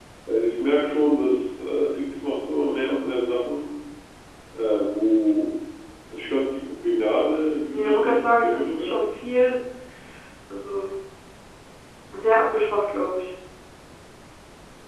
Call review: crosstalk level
present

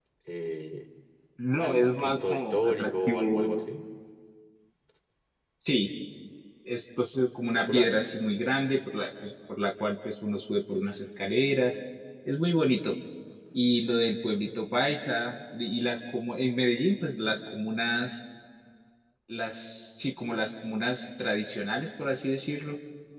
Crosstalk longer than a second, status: present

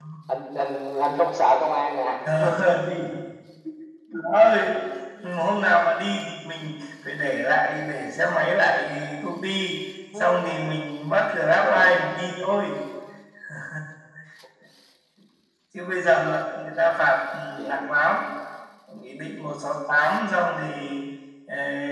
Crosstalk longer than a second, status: none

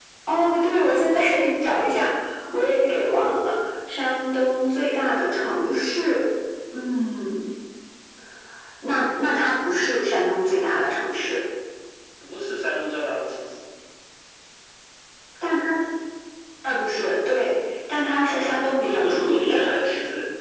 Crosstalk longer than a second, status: present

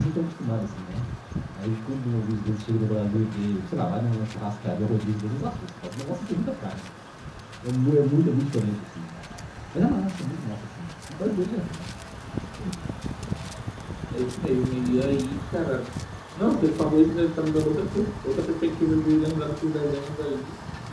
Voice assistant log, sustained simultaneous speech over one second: none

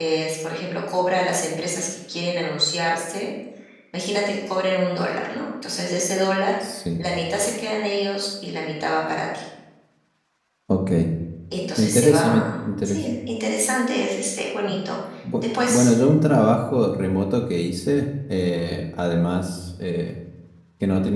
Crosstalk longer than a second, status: present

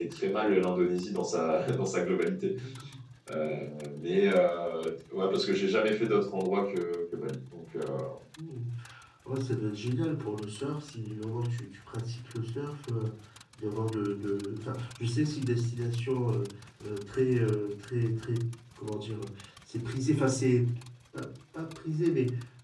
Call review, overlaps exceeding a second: none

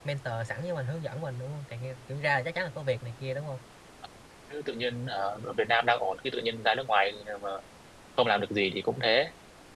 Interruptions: none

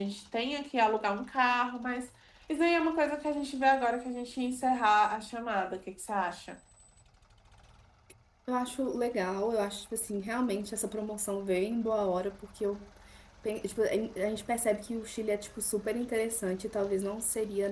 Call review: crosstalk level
none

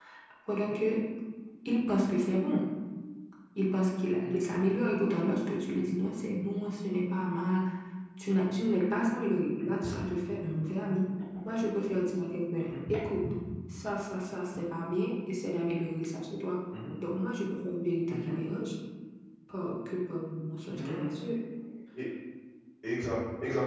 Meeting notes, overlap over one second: none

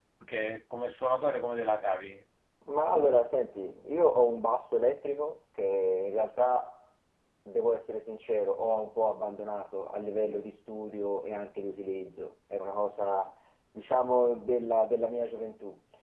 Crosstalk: none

